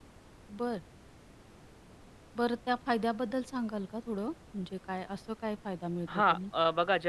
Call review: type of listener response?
taking over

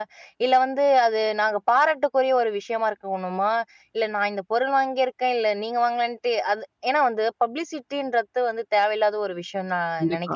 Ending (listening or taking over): taking over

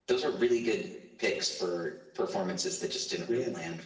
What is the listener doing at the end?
listening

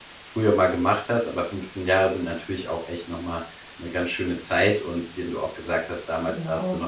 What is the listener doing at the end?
listening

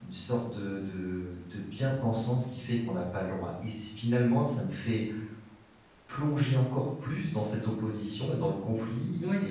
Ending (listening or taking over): listening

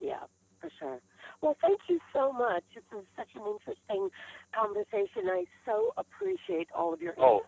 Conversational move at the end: taking over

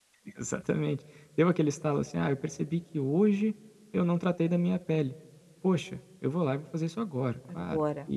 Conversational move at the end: listening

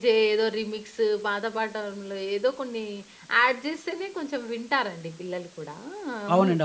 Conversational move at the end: taking over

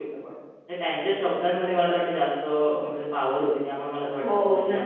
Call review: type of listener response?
taking over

